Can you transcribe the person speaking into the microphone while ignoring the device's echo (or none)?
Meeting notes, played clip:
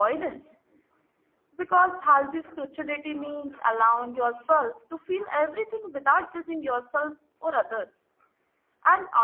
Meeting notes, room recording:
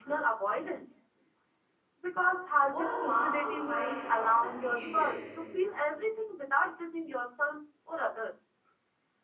or a mask to hide a toxic behavior.